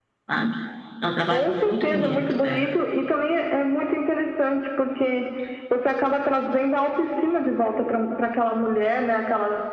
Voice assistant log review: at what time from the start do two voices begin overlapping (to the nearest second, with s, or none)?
1 s